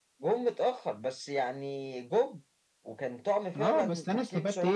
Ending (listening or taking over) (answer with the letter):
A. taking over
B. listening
A